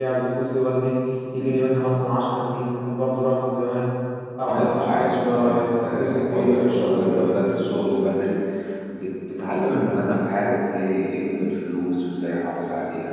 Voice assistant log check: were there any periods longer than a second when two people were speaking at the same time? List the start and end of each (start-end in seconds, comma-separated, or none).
4.5-7.2